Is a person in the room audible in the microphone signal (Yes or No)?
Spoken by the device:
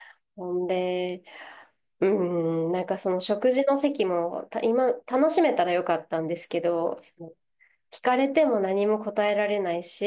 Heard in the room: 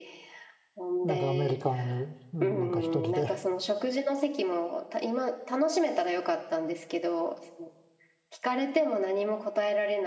Yes